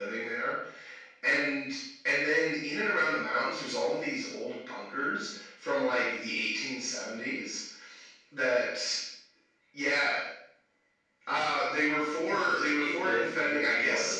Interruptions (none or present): present